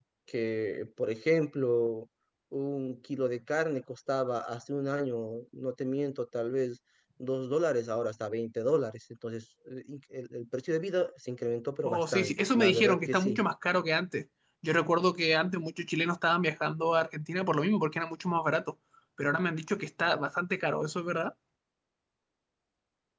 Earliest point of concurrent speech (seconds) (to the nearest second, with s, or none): 12 s